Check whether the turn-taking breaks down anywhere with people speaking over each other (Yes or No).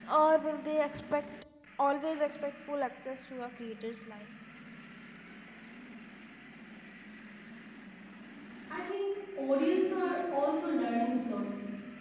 No